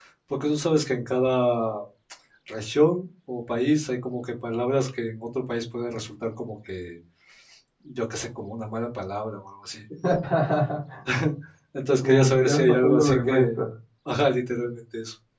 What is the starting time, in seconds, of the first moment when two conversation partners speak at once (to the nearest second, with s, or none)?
12 s